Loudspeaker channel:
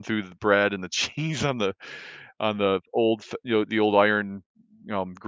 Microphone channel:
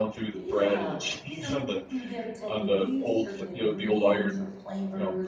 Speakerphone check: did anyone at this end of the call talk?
Yes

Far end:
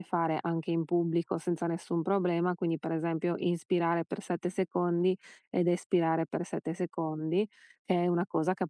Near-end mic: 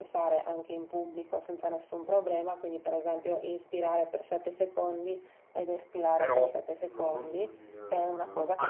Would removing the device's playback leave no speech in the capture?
No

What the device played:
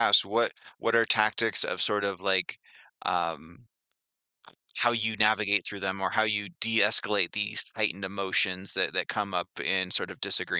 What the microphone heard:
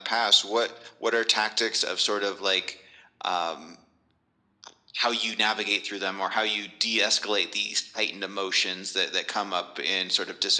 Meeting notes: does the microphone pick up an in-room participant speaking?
No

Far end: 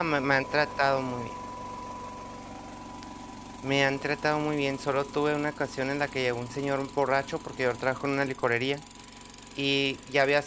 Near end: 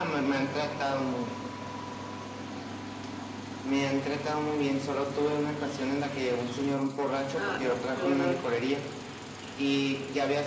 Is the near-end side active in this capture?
Yes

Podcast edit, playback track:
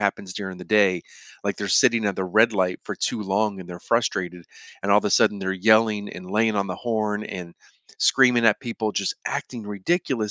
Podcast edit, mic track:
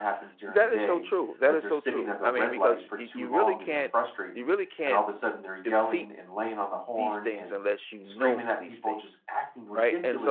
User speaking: Yes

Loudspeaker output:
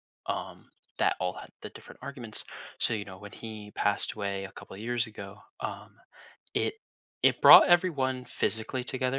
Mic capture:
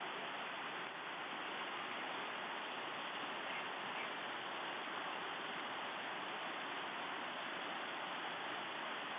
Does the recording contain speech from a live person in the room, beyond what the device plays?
No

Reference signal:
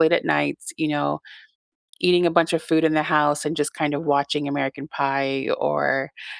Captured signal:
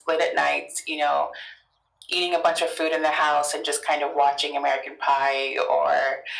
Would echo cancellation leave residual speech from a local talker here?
No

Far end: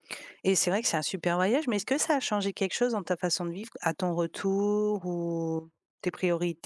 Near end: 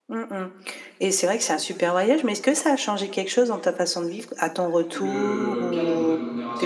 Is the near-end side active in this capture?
Yes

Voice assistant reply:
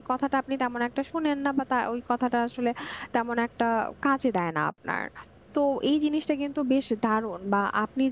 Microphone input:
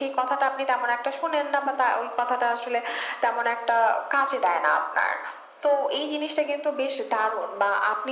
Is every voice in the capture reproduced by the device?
Yes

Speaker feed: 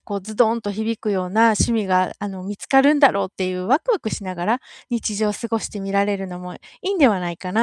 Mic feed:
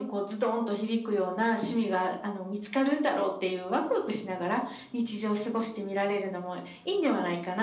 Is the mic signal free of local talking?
Yes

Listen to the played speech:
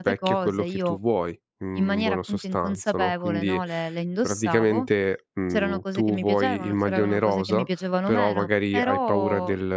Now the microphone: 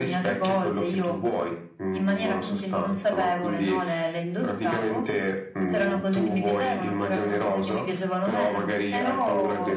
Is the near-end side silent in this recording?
Yes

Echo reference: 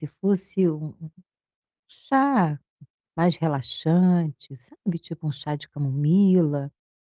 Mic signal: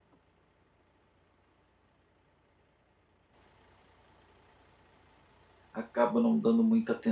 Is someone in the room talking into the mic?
Yes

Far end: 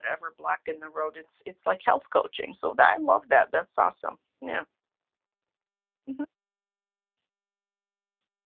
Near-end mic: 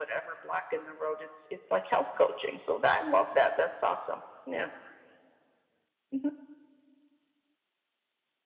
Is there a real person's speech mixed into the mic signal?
No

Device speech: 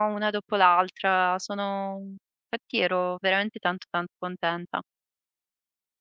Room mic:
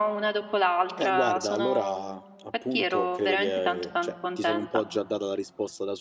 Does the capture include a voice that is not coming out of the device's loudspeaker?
Yes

